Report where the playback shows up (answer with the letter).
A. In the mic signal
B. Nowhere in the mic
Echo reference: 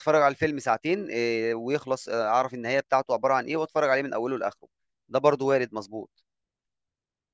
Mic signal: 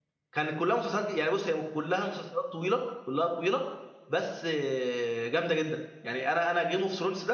B